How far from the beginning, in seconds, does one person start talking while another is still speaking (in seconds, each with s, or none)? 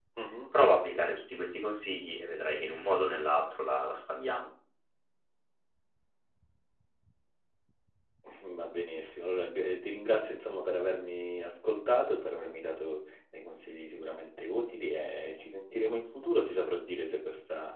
none